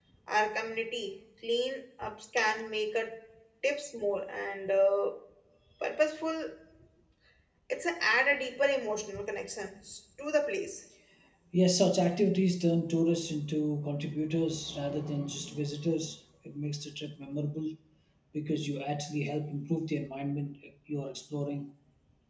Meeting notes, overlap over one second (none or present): none